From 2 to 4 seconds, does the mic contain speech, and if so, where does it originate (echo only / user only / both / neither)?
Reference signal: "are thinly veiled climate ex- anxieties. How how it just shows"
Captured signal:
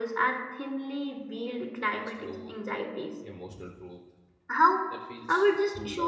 both